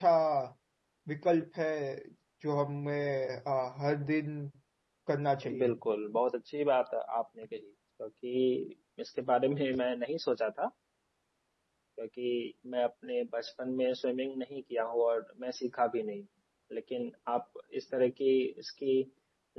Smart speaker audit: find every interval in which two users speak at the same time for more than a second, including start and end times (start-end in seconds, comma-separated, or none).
none